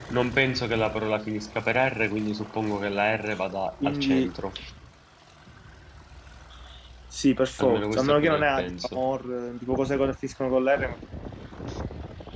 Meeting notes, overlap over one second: present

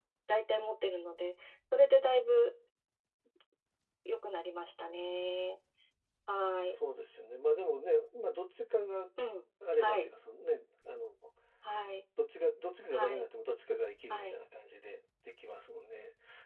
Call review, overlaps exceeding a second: none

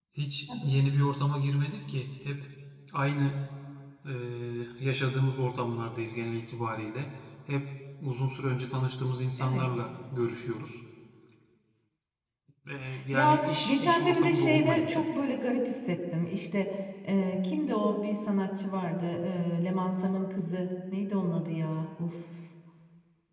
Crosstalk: present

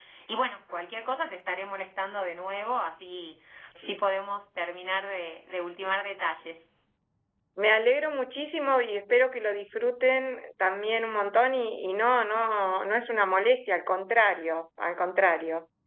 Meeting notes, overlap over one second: none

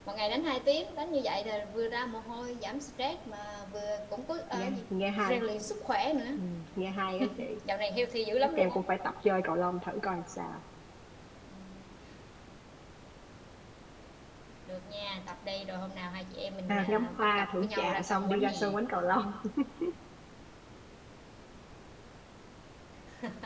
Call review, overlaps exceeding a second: present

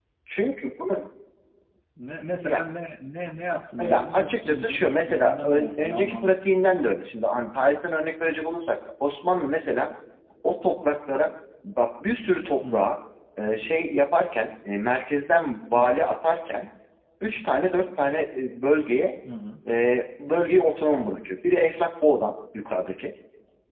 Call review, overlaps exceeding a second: present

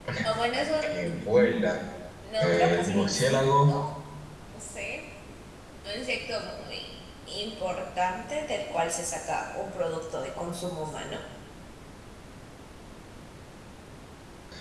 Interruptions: present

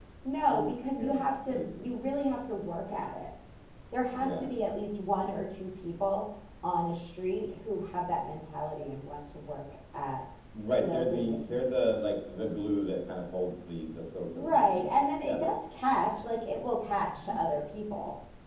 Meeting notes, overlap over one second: present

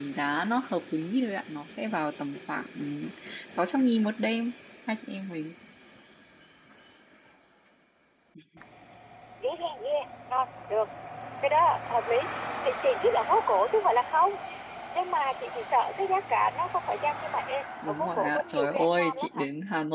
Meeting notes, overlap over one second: present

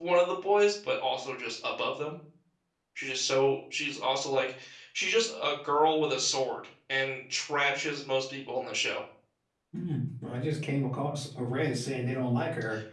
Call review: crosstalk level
none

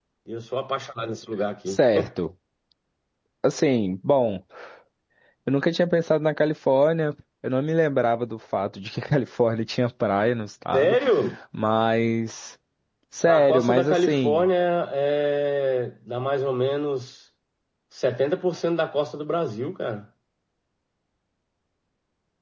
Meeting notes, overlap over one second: present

